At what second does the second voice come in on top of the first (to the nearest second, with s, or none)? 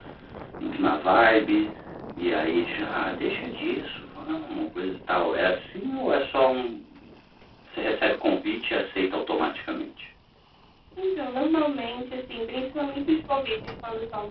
none